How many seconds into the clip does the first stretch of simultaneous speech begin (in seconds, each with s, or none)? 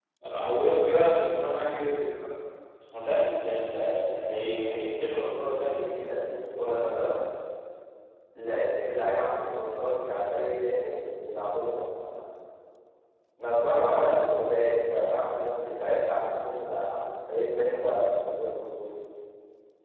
none